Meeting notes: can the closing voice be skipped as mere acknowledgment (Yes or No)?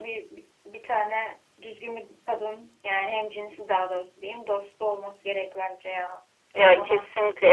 No